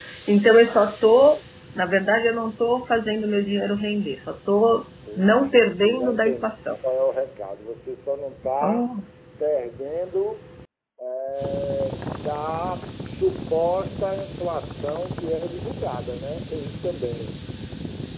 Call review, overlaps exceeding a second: present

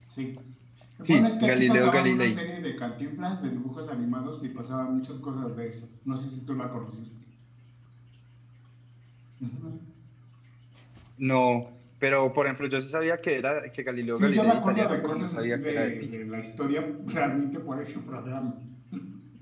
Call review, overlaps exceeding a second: present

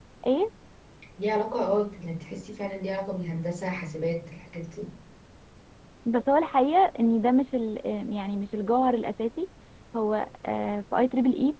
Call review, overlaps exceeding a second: none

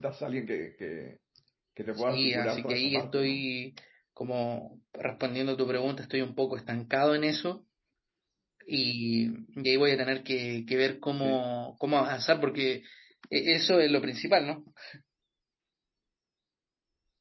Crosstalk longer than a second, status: present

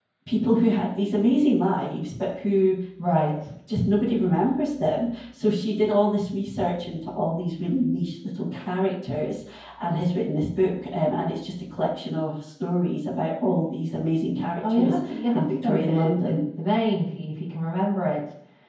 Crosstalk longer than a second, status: present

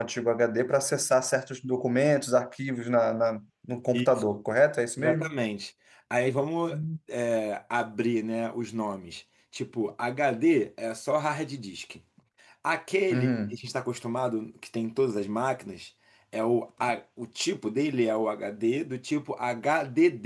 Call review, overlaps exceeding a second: none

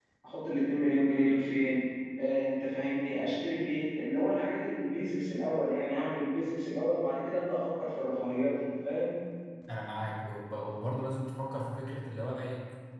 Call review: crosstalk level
none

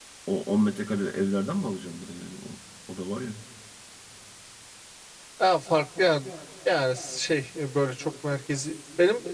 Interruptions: none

